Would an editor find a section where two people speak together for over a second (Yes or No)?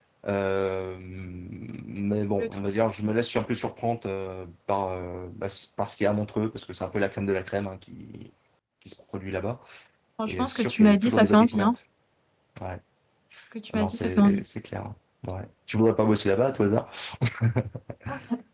Yes